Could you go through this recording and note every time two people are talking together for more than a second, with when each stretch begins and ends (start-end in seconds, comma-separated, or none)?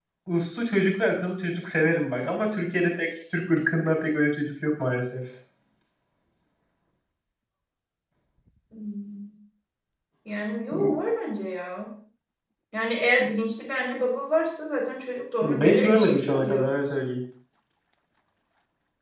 15.4-16.7